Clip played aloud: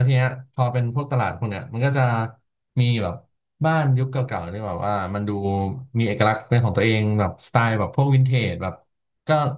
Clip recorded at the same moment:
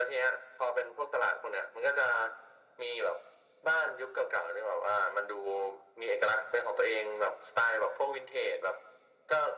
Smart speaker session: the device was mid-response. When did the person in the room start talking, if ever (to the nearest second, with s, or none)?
none